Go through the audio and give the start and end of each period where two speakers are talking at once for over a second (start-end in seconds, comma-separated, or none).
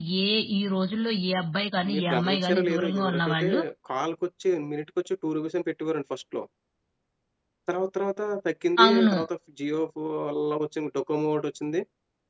1.9-3.5